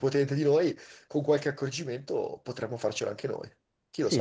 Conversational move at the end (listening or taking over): taking over